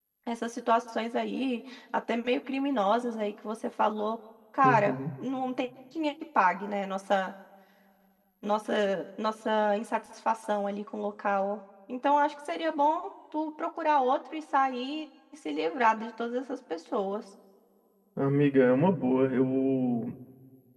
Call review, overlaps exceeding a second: none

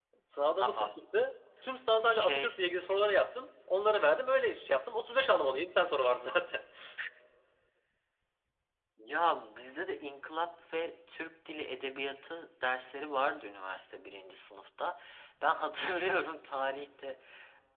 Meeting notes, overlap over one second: none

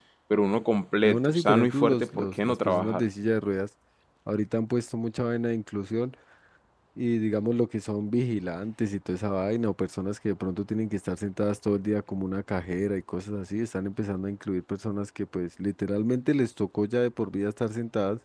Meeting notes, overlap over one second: present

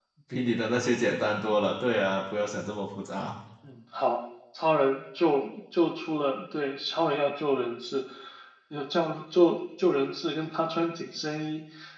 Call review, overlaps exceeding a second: none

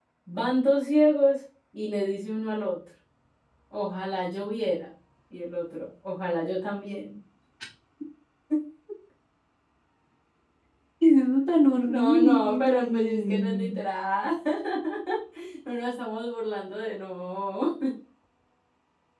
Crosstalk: present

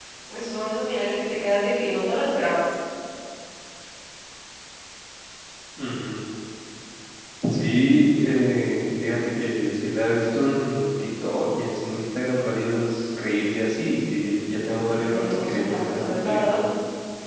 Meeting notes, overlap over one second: present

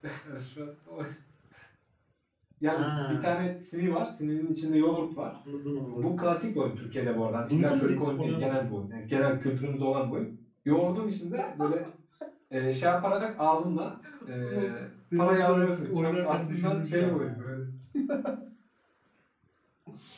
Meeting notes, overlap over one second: present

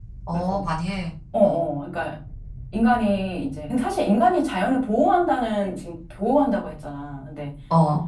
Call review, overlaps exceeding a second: none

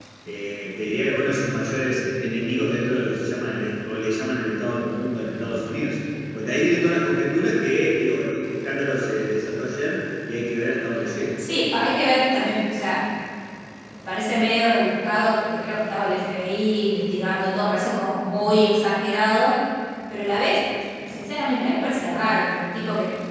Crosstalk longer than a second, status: none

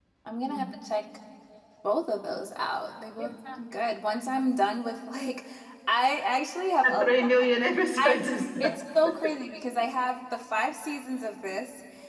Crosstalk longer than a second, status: none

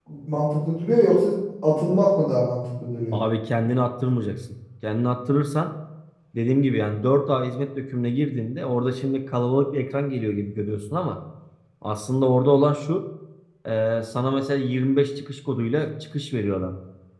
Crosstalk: none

